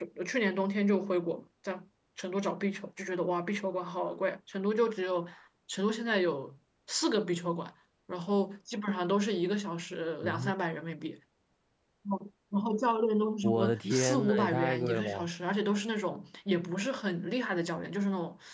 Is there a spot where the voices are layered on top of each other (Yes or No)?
Yes